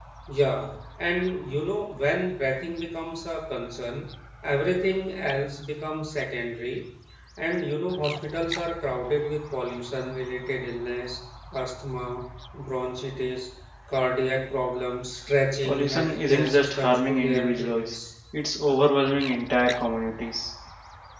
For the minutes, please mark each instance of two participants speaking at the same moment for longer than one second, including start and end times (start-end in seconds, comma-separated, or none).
15.6-18.0